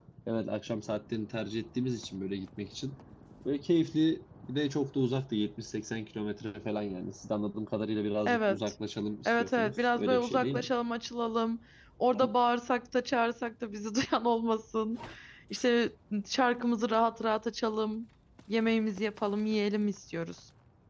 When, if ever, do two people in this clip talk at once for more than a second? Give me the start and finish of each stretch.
9.2-10.7

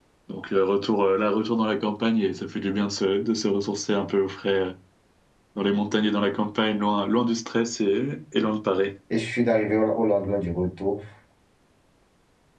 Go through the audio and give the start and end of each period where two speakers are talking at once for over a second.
none

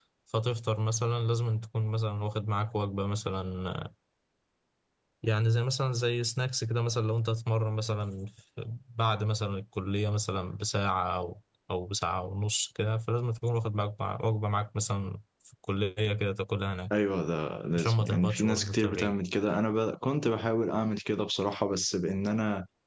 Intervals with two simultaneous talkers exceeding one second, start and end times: 17.8-19.1

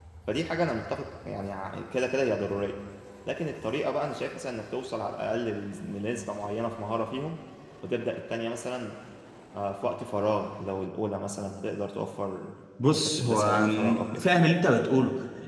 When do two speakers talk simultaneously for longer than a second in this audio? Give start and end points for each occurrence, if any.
12.9-14.2

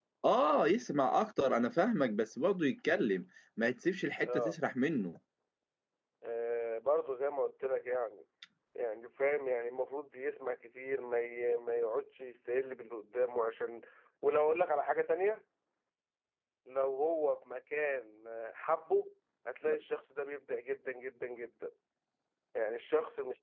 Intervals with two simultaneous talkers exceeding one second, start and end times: none

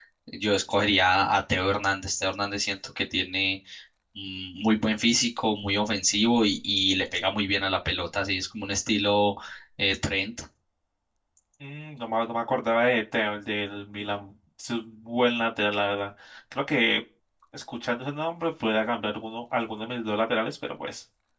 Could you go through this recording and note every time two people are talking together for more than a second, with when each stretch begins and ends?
none

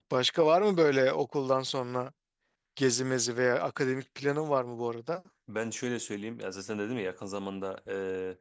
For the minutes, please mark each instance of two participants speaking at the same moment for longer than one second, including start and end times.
none

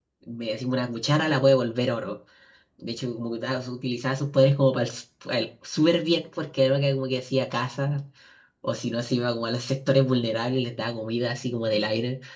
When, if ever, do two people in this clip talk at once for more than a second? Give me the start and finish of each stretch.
none

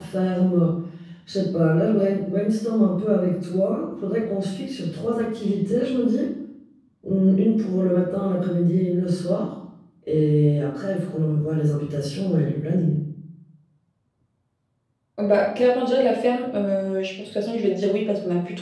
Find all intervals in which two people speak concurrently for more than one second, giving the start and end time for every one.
none

